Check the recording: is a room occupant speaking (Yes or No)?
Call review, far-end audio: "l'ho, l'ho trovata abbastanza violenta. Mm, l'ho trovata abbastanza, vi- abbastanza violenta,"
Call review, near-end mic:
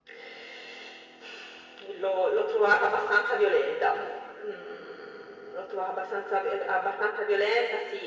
No